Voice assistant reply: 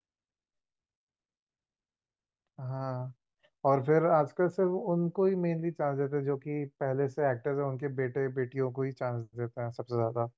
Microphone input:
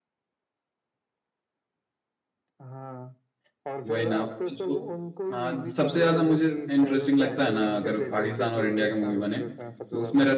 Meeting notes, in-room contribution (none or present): present